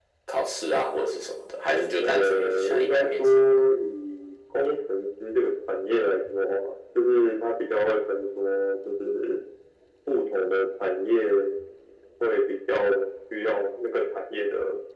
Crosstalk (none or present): present